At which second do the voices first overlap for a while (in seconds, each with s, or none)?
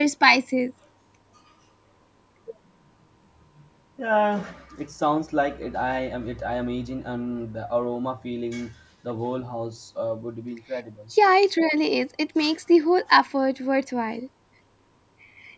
none